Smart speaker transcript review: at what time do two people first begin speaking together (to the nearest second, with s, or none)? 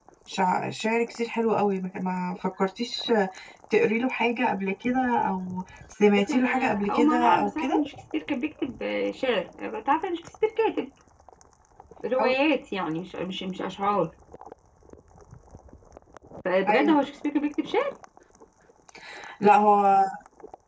6 s